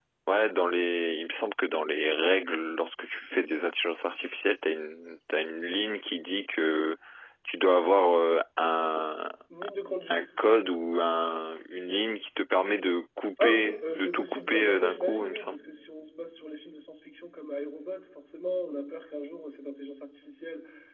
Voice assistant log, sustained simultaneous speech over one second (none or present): present